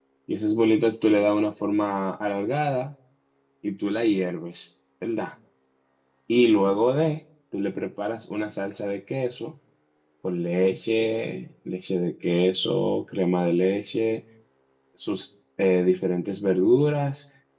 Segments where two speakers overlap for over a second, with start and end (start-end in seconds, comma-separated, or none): none